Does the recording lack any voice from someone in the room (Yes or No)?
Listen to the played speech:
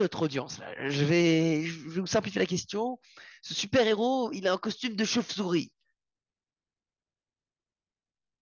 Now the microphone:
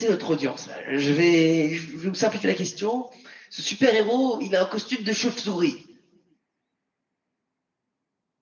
Yes